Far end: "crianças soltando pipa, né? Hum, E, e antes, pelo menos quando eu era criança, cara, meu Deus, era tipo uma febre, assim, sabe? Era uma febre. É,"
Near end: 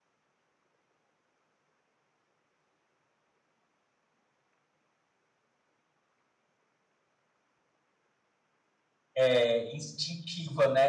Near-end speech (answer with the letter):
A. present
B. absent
A